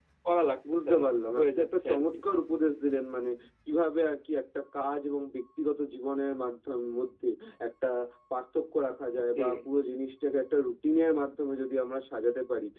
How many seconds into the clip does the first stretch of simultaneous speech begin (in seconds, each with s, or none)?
0.7 s